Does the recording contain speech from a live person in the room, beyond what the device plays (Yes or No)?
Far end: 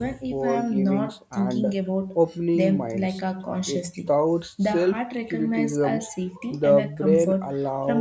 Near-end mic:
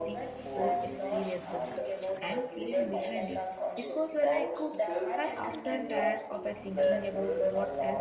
Yes